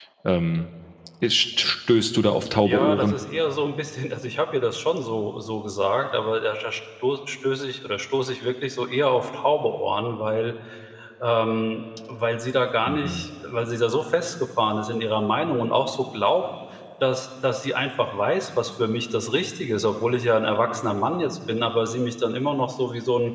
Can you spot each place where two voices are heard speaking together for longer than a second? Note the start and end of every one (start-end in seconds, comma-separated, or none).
none